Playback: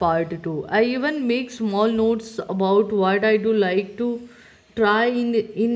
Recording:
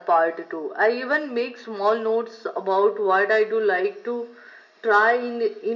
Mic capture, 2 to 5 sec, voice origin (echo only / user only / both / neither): echo only